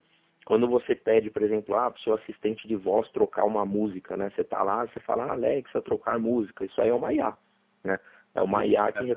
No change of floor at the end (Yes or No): Yes